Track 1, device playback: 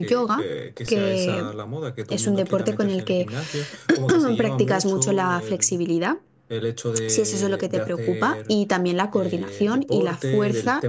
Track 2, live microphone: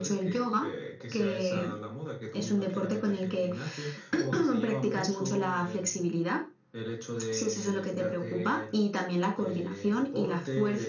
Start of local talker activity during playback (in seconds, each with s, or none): none